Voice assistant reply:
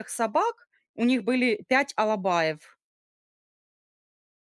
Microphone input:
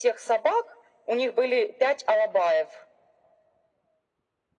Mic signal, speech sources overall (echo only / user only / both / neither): echo only